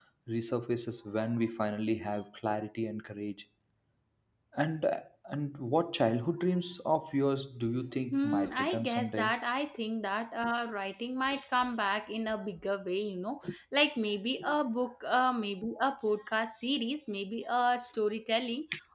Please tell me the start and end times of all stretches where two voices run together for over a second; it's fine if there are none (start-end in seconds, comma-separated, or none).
8.1-9.3